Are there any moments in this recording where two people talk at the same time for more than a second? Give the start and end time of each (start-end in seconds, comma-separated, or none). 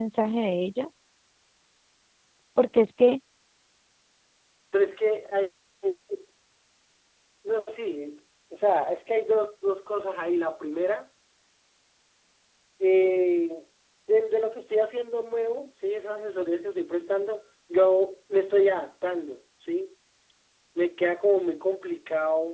none